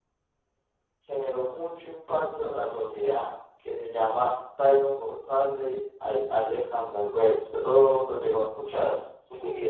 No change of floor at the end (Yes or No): No